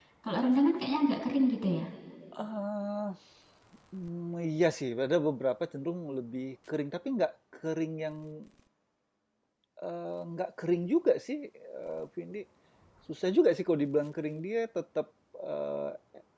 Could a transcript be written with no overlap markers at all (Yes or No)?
Yes